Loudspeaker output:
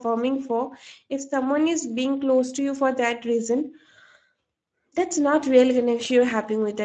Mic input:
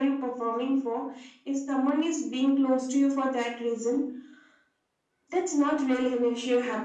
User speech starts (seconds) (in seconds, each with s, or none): none